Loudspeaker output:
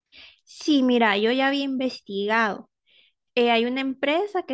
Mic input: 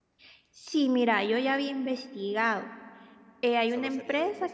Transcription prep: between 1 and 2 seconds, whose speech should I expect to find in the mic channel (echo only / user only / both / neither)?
echo only